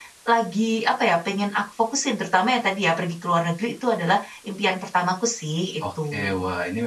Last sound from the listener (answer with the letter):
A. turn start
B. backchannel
A